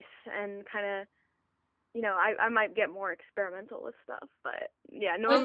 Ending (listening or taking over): listening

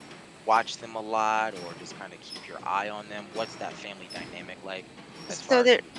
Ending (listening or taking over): taking over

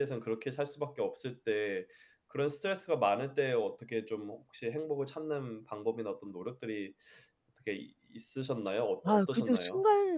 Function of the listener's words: taking over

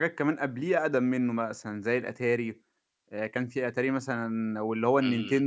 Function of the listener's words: listening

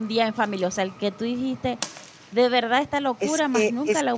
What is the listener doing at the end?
taking over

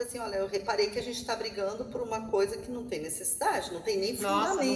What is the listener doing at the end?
taking over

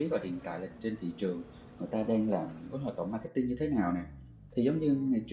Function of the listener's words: listening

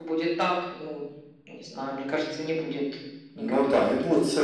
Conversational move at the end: taking over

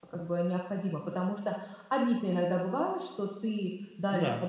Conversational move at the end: listening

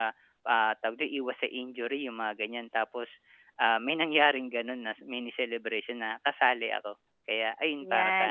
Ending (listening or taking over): taking over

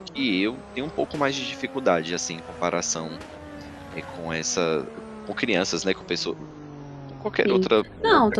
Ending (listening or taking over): taking over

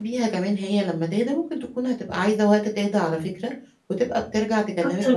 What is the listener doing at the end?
taking over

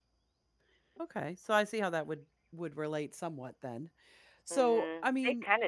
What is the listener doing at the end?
taking over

